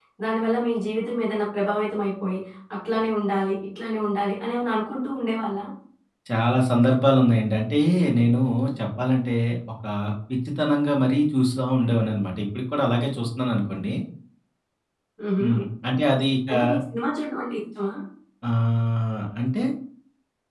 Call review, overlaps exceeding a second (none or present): none